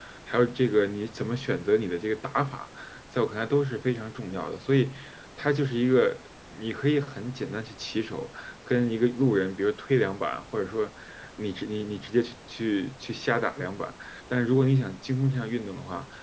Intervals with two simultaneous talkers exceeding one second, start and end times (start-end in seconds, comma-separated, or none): none